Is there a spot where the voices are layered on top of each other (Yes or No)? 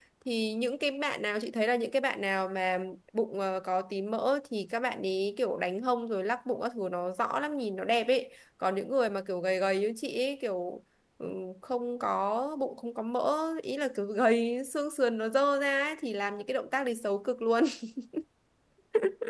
No